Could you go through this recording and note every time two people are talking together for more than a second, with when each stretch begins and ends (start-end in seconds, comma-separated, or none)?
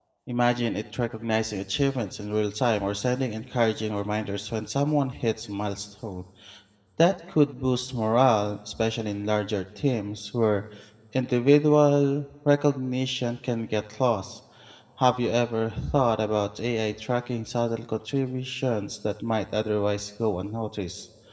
none